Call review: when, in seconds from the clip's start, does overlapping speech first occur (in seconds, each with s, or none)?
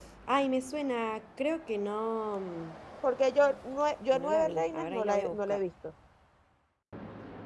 4.1 s